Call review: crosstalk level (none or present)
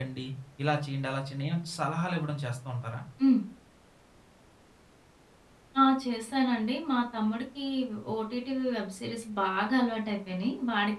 none